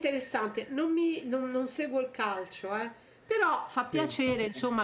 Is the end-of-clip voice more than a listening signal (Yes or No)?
No